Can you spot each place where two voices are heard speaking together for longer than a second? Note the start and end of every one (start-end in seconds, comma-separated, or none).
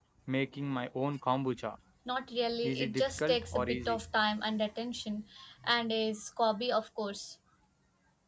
2.6-4.0